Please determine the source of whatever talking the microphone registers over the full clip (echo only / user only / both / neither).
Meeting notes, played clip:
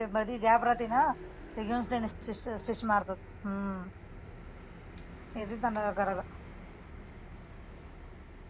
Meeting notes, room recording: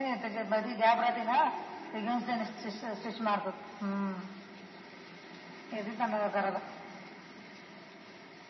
echo only